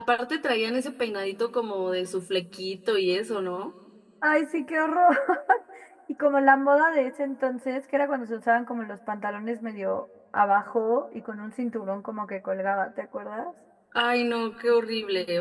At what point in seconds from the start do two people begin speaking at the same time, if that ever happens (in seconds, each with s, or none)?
none